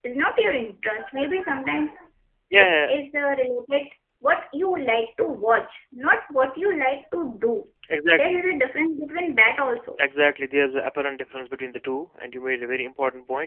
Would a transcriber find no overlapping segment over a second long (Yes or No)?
Yes